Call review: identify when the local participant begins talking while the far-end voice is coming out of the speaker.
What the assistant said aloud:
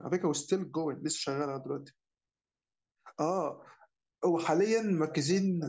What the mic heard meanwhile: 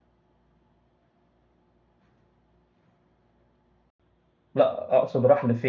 4.5 s

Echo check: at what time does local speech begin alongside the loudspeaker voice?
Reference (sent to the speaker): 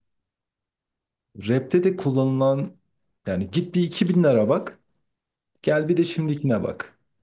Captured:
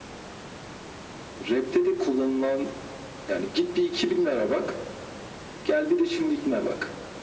none

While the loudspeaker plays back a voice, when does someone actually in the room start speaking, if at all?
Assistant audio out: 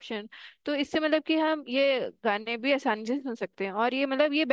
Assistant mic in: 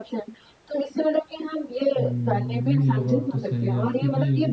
2.0 s

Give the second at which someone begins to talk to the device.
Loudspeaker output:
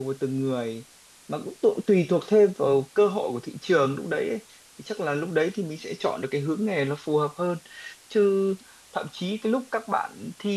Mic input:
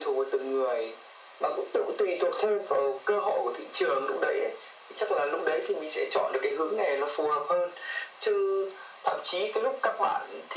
none

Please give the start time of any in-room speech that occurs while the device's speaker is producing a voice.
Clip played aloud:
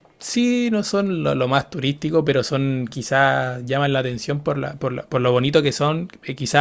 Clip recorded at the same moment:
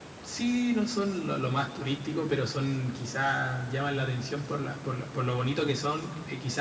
none

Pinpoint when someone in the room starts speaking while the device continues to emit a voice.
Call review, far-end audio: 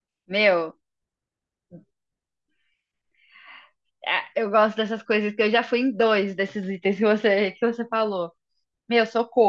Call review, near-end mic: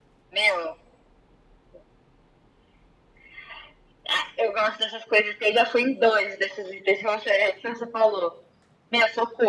none

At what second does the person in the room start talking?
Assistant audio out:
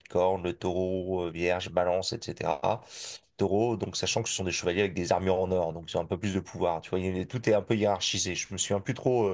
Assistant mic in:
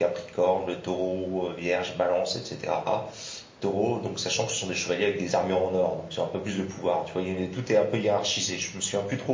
none

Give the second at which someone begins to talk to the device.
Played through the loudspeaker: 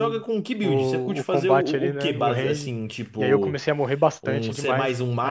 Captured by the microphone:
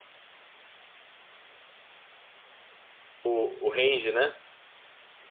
3.2 s

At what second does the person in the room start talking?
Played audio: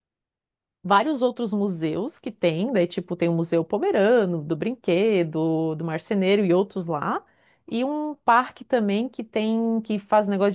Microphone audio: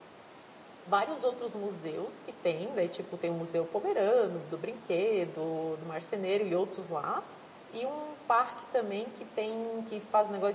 none

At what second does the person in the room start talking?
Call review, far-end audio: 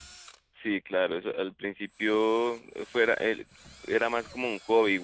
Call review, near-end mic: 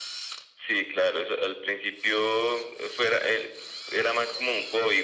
none

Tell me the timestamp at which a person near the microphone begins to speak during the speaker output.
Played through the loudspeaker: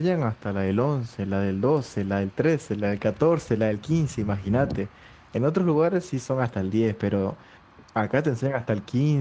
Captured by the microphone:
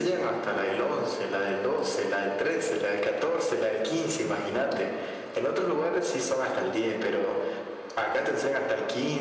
none

